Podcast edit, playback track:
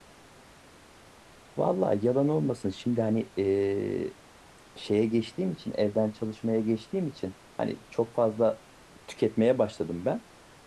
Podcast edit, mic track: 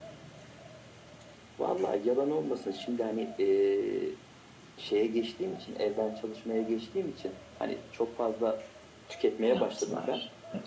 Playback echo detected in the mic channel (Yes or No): Yes